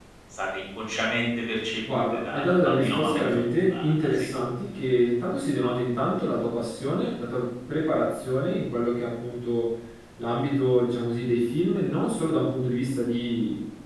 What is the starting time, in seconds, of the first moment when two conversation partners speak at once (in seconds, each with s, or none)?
1.8 s